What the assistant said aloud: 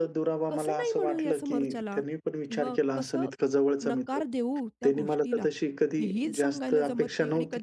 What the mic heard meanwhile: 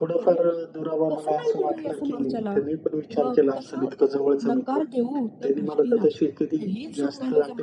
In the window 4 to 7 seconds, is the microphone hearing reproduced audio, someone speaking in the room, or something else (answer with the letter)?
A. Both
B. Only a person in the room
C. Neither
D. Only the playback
D